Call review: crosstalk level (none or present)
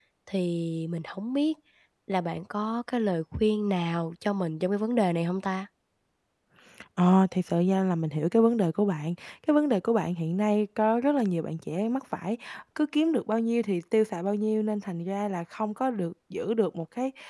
none